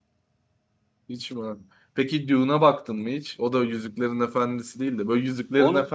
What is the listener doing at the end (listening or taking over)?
listening